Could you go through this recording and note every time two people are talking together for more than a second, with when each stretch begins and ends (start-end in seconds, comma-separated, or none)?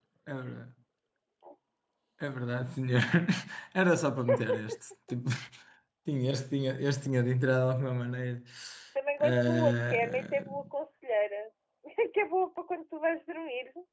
9.2-10.4